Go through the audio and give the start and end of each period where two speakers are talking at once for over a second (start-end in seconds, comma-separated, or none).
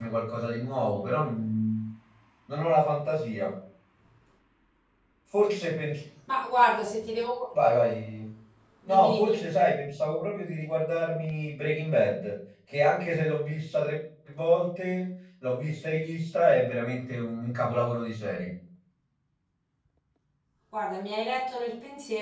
none